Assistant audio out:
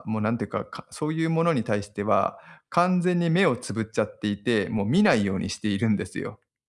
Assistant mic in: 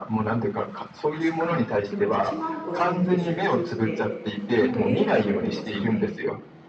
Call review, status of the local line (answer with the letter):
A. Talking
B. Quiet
A